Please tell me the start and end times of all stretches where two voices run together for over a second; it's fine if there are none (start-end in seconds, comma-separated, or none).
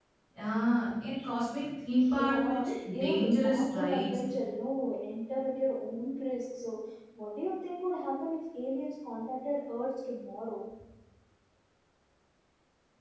2.0-4.2